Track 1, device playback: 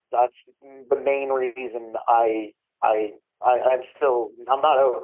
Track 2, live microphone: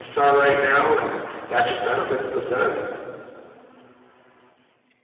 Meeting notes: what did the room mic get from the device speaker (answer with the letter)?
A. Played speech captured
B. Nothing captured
B